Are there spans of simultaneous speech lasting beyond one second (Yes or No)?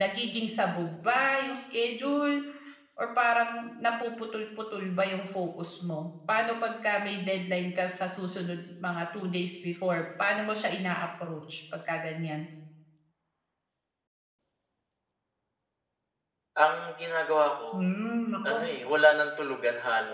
No